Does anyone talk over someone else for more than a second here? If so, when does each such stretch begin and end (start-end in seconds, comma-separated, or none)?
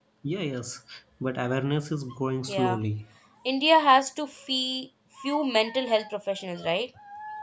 none